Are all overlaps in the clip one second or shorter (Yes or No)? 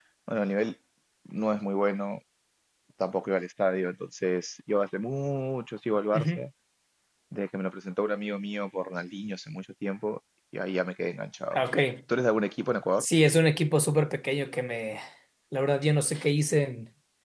Yes